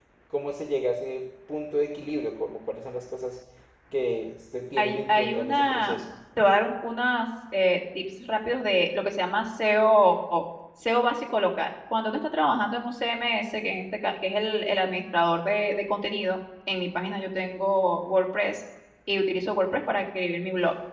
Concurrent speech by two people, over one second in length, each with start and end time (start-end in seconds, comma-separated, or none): 4.8-6.0